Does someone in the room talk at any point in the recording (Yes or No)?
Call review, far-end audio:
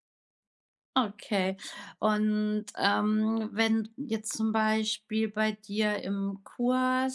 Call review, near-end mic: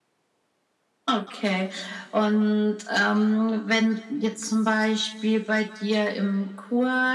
No